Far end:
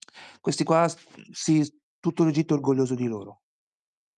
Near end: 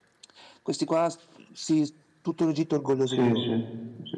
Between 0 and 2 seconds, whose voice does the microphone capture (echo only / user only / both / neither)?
echo only